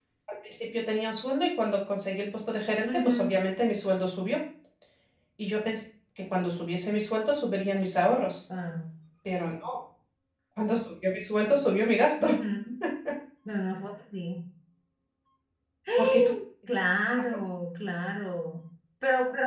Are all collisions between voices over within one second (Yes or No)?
Yes